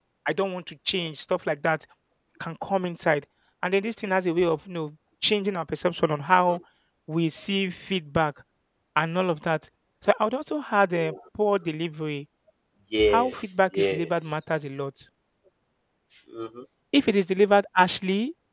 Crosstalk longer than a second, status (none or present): present